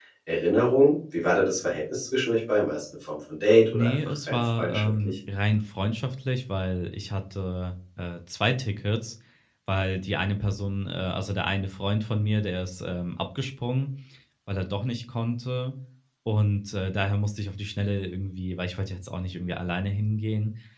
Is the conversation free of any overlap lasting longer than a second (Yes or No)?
No